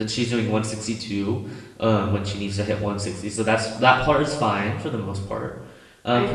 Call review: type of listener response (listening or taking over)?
listening